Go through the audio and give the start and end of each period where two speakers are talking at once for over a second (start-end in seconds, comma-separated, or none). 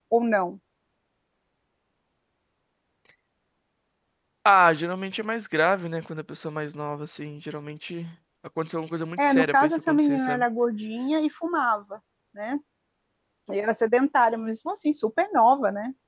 9.2-10.4